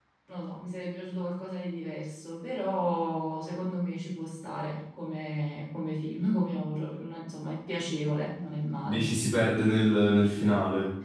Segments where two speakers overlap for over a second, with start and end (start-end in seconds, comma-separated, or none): none